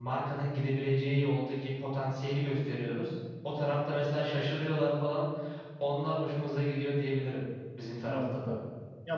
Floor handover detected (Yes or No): Yes